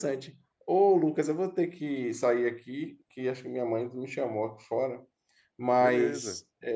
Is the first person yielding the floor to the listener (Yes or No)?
No